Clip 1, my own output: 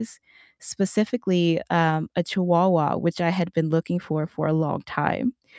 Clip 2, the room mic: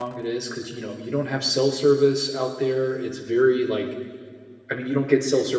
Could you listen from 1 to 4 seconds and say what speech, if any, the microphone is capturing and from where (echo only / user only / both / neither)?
user only